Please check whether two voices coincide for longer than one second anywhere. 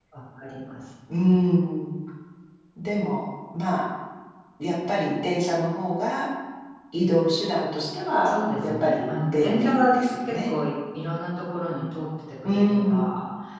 Yes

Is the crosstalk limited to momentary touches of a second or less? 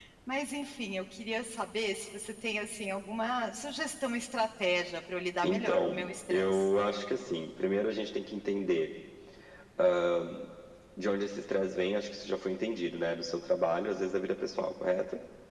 No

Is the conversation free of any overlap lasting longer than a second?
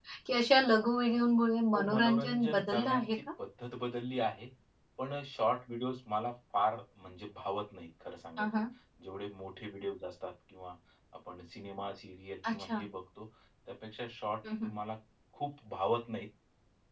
No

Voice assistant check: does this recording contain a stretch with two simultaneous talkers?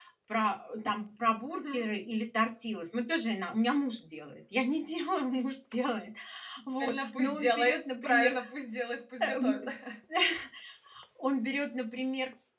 Yes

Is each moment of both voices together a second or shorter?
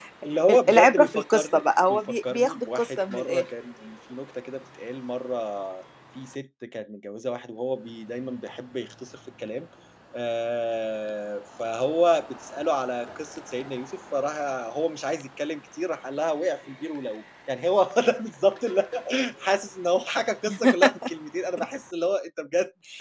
No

